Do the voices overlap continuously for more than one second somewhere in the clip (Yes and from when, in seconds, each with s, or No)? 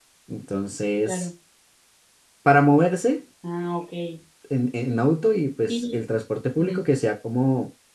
No